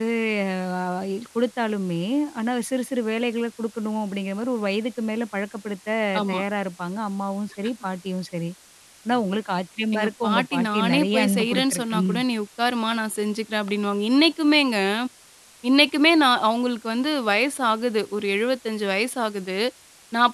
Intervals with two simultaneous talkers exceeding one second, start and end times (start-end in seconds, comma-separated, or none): 9.9-12.1